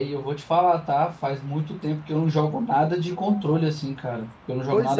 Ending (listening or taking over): taking over